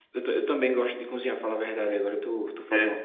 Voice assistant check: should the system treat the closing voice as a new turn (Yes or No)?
No